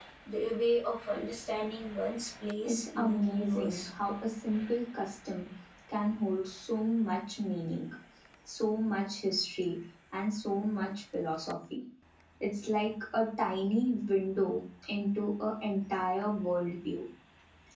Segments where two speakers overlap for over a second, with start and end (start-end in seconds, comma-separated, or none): 2.6-3.9